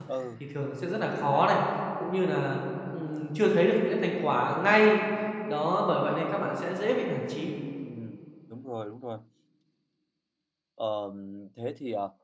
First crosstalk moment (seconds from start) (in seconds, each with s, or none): none